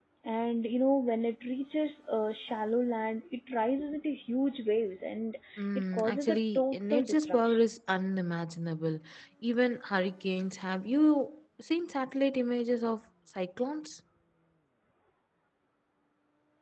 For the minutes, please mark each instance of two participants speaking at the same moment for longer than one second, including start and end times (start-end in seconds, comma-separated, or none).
5.8-7.7